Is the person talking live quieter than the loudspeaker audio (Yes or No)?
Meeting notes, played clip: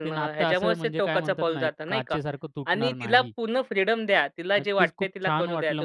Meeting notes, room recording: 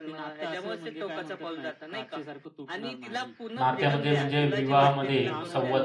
No